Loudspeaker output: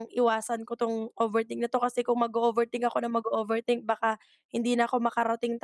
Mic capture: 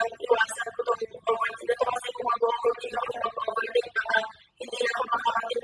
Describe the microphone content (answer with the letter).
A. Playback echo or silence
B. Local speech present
A